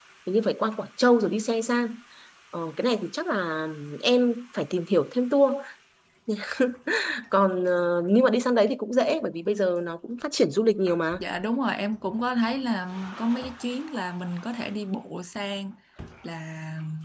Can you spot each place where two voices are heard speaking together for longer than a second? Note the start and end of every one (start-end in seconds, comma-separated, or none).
none